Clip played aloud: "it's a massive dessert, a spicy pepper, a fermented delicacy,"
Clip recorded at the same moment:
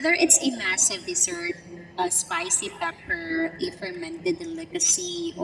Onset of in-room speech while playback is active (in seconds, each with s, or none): none